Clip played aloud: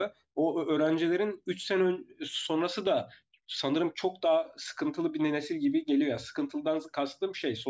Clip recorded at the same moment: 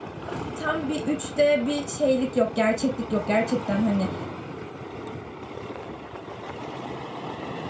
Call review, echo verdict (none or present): none